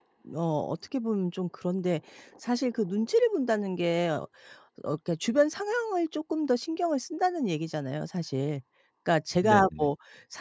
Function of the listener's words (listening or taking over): listening